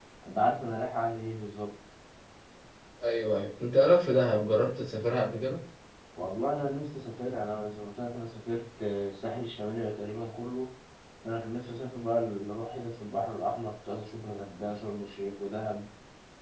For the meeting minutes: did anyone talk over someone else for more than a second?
No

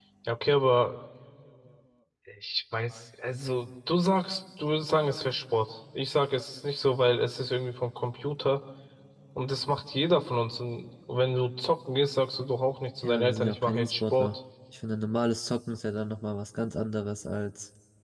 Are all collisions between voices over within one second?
No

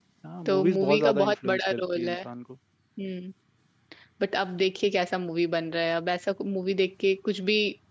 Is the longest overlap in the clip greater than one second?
Yes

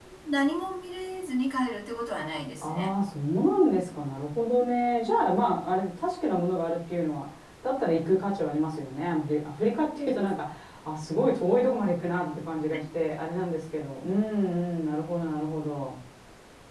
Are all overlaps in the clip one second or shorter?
Yes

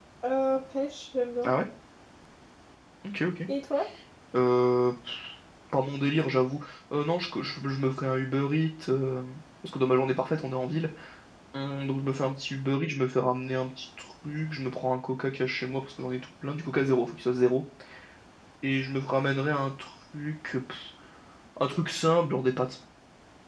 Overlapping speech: No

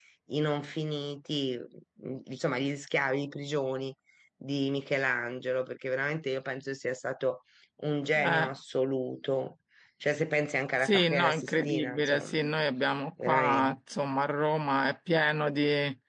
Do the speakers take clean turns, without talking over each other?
No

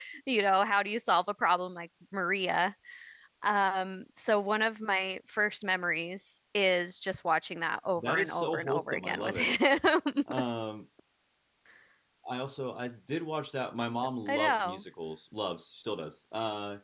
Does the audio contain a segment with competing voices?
Yes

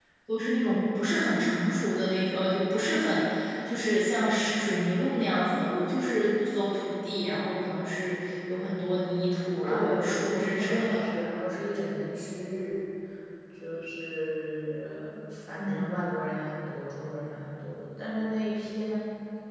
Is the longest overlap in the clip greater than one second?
Yes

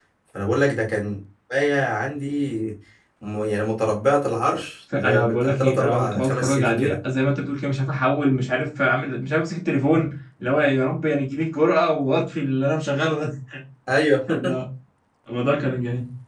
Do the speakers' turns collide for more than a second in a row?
Yes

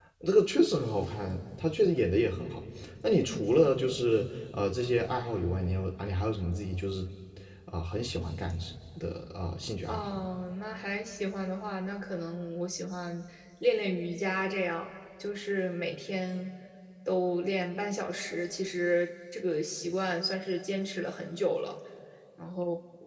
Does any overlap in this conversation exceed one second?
No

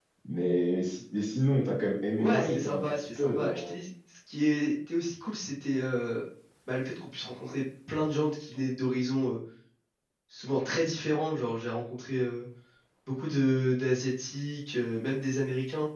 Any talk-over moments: Yes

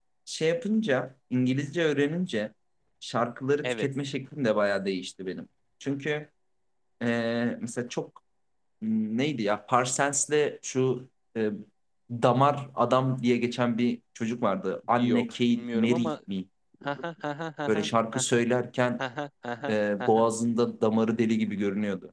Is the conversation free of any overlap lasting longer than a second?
No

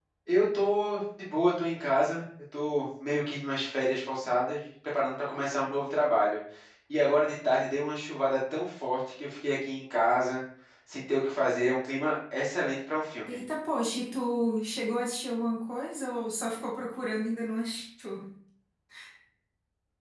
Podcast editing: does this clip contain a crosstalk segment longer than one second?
No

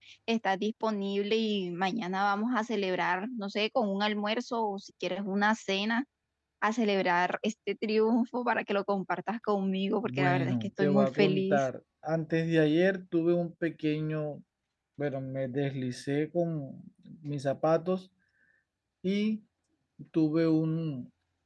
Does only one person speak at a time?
No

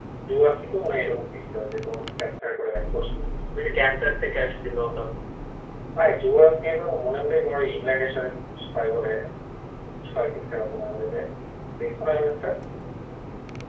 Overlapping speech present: No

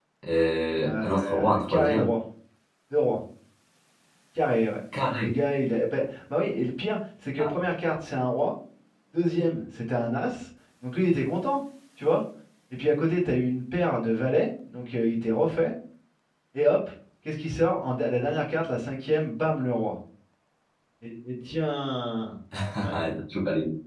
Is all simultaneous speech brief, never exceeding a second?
No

